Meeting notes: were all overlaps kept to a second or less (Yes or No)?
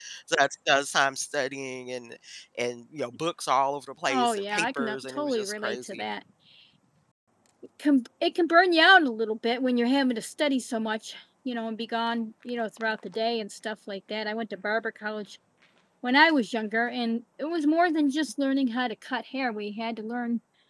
No